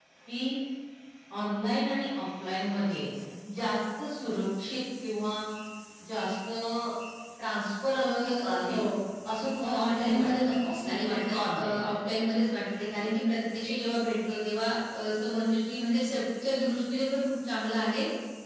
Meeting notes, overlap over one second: present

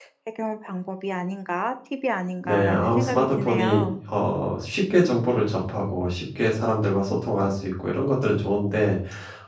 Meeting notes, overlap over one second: present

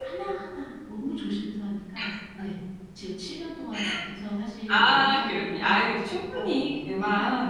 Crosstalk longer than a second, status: present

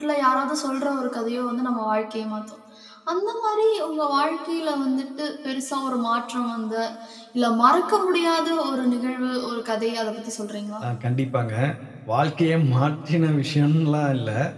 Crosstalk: none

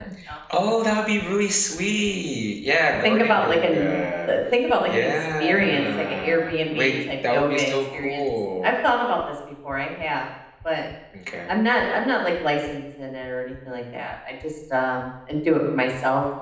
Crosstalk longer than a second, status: present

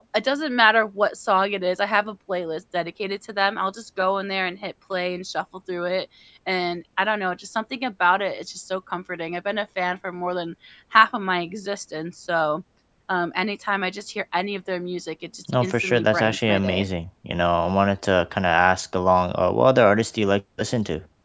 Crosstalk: present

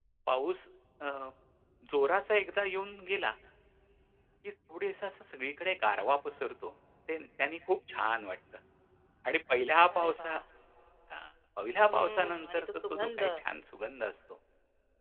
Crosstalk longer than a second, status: present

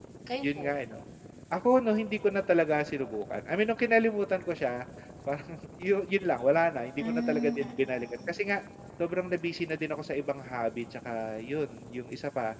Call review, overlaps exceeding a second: present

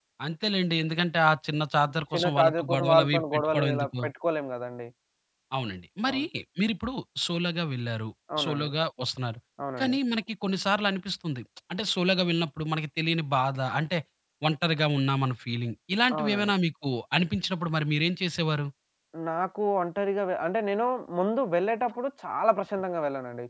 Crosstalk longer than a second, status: present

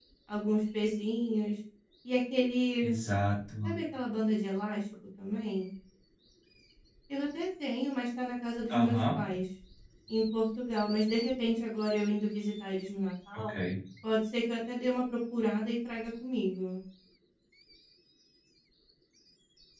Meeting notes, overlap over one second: none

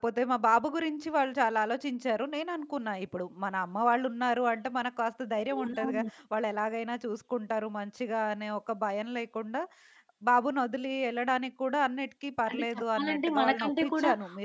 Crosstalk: present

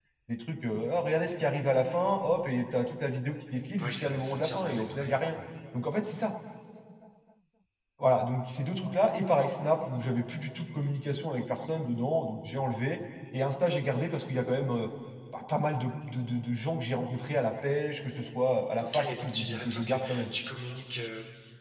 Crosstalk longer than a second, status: present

